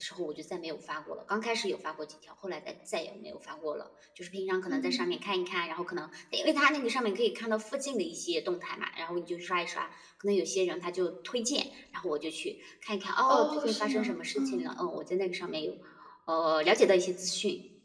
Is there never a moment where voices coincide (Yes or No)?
No